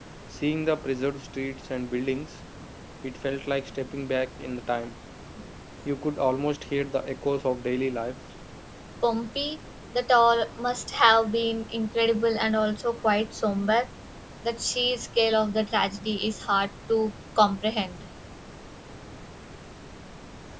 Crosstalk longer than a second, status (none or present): none